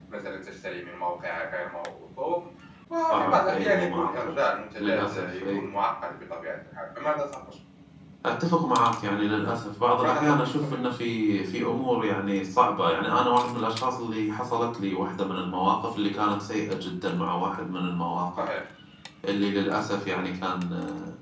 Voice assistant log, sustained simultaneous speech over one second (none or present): present